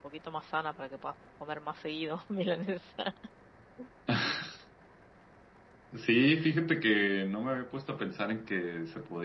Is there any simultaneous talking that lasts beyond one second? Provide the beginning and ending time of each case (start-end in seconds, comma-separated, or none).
none